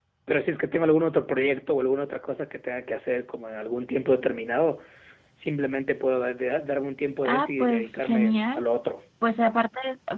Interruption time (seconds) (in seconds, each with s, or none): 7.2 s